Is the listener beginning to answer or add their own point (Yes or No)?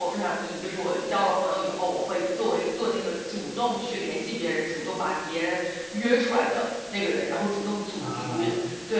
No